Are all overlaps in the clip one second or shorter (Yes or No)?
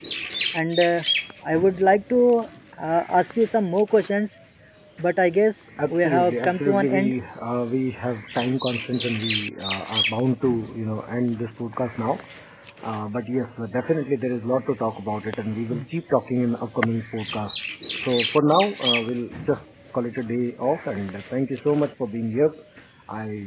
No